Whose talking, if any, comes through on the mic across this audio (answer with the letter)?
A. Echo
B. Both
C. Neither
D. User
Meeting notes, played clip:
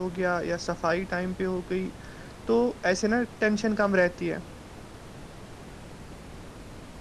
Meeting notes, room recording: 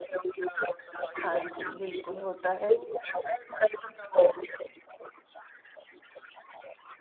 B